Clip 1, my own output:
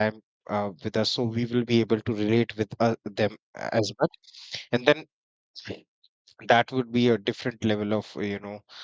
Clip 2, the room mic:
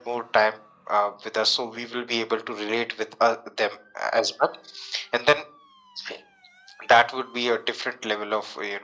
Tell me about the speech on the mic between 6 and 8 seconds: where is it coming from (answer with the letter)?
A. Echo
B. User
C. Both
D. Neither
A